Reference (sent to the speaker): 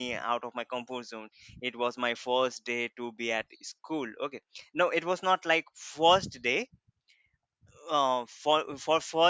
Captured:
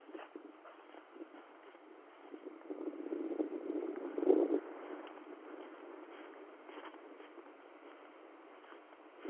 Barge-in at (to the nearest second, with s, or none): none